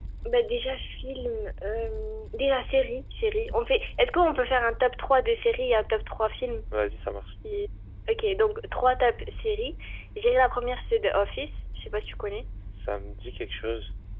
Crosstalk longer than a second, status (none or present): none